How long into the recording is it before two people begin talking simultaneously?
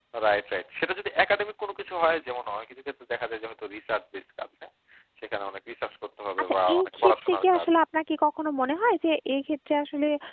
6.4 s

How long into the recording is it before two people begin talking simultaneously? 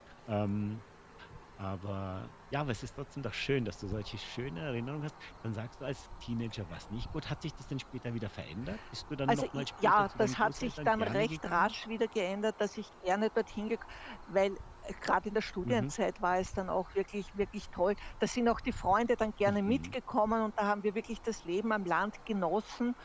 9.3 s

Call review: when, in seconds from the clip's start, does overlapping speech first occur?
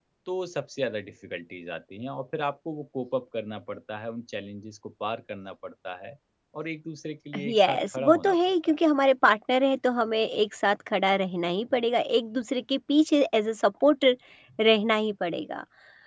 7.3 s

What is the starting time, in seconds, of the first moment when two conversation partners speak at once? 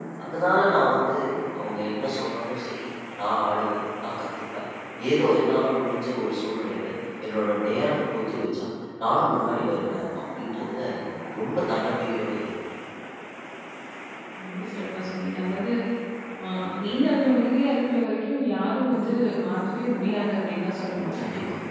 none

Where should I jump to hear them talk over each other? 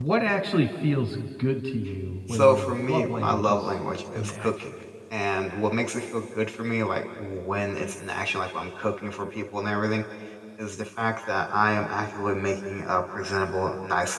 2.3 s

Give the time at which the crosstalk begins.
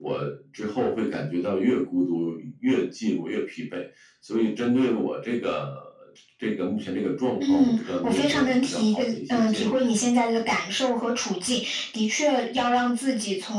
7.4 s

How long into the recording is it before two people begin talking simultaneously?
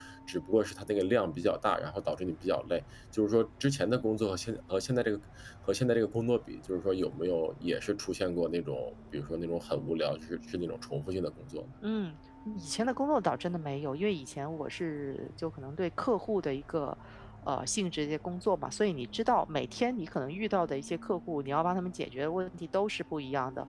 none

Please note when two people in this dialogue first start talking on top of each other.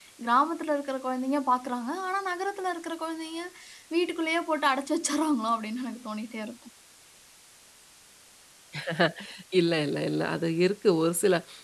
none

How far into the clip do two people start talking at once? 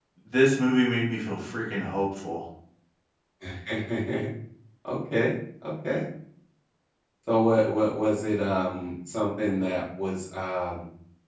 none

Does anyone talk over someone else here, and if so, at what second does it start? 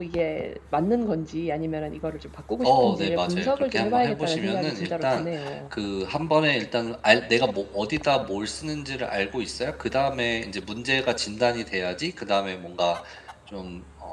2.6 s

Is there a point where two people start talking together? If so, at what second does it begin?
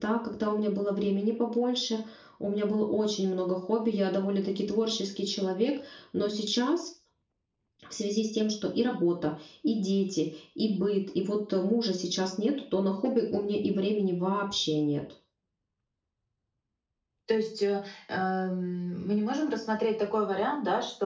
none

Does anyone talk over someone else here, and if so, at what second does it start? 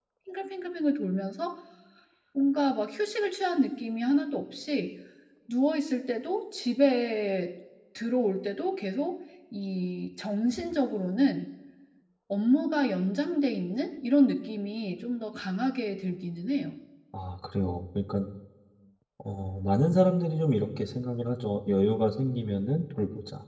none

